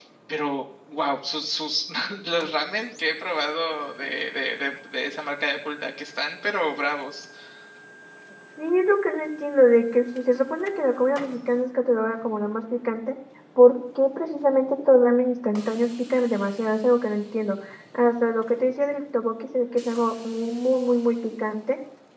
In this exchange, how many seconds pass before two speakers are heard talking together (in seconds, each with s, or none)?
none